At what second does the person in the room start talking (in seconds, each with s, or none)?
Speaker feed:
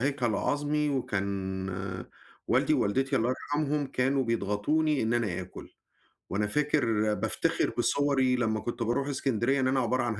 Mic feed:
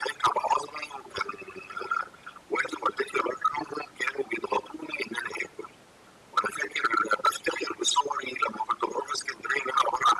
none